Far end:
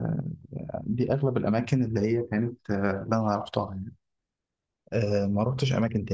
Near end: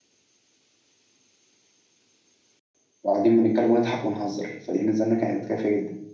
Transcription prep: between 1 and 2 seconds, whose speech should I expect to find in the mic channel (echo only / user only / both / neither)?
neither